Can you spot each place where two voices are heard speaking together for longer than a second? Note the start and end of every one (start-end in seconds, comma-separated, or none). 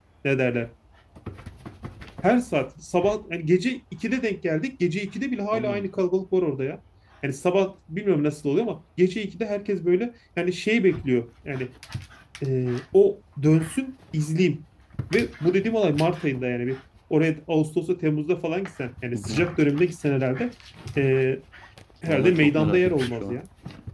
22.1-23.4